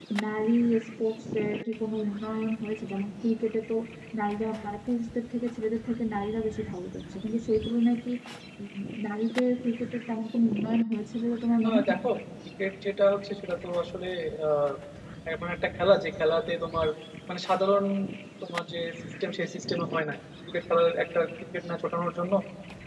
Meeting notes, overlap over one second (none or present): none